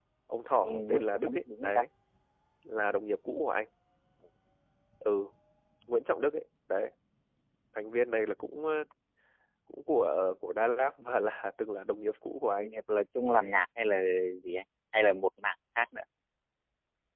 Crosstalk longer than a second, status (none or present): present